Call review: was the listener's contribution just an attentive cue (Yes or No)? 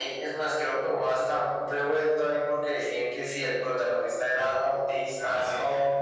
Yes